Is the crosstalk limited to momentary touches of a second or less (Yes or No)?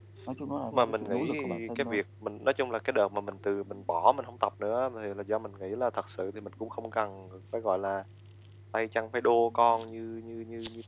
No